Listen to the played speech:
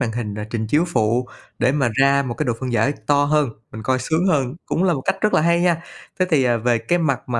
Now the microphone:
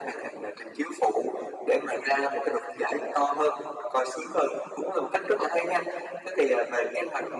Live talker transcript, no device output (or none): none